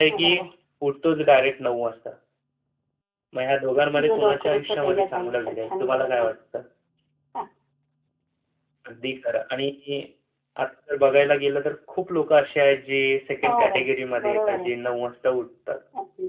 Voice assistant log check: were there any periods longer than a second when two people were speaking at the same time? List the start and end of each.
4.1-6.3, 13.4-14.7

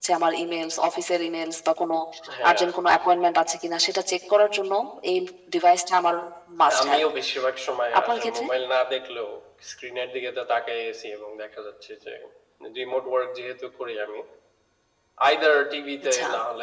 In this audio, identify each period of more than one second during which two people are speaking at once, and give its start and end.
none

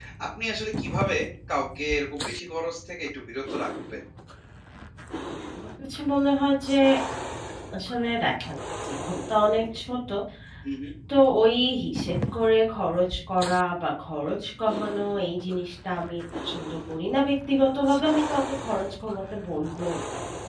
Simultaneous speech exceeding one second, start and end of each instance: none

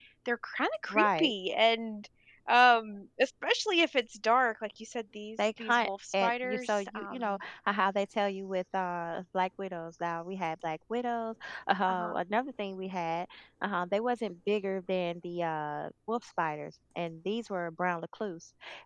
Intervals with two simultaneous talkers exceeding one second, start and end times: 5.4-7.4

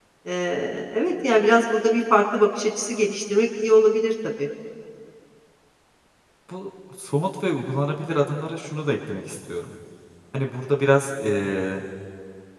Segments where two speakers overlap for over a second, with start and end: none

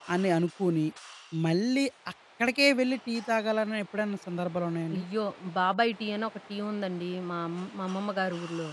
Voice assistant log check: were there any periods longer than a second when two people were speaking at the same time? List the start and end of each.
none

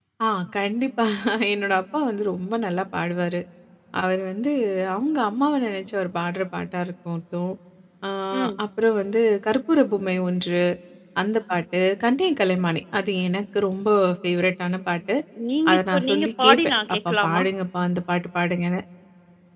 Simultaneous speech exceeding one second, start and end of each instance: 15.7-17.4

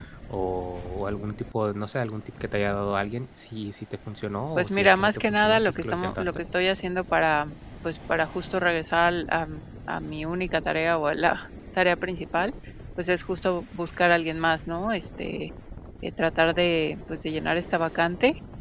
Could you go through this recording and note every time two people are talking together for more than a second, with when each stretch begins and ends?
4.6-6.3

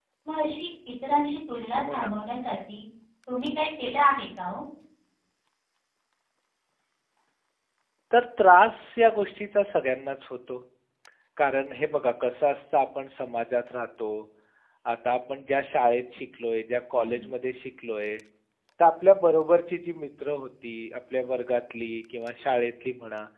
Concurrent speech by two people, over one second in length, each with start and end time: none

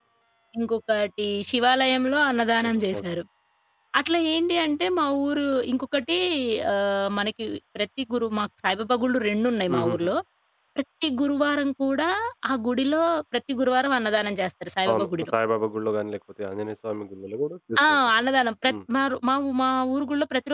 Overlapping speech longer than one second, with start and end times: none

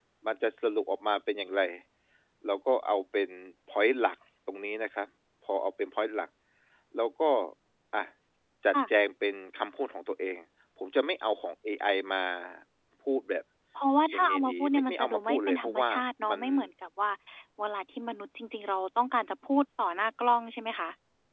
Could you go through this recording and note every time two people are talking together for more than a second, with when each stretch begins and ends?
14.2-15.9

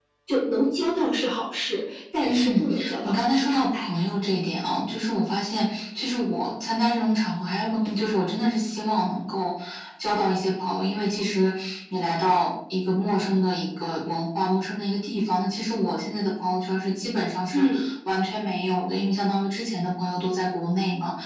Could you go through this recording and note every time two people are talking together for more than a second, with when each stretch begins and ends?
2.2-3.9

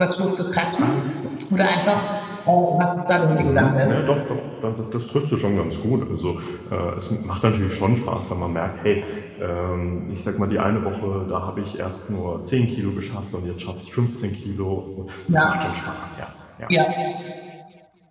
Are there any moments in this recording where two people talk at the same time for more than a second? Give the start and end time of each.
none

